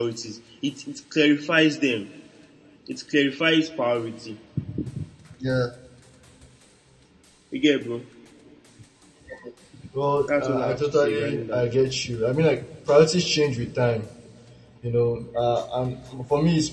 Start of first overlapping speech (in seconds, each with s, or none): 10.3 s